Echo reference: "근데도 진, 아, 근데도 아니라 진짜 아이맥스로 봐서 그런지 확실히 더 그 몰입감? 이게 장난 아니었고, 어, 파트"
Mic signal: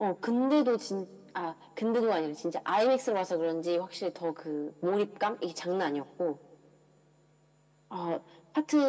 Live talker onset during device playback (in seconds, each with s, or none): none